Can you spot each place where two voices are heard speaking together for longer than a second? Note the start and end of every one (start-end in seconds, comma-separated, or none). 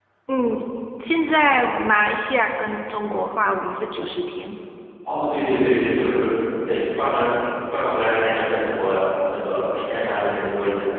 none